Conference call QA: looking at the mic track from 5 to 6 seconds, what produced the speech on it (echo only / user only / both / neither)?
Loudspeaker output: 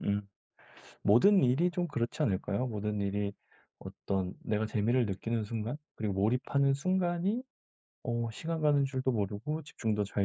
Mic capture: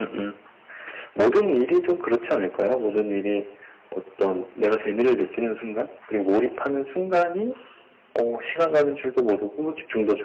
echo only